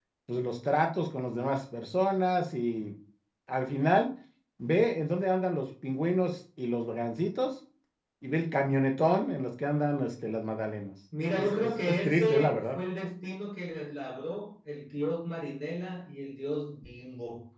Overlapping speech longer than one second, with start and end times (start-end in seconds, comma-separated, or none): 11.3-12.8